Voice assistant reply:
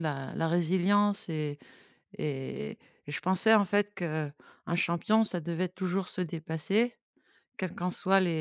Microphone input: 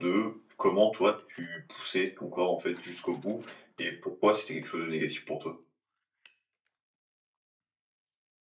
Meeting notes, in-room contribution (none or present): present